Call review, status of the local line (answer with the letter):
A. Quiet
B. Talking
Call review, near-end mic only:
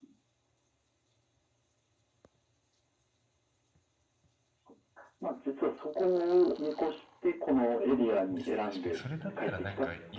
B